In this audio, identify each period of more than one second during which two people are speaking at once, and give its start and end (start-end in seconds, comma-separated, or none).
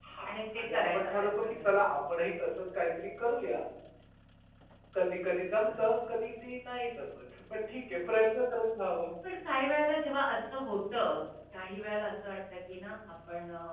0.6-1.9